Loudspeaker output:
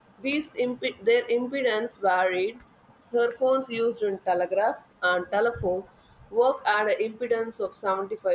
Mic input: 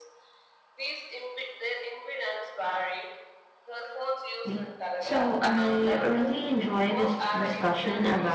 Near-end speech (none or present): present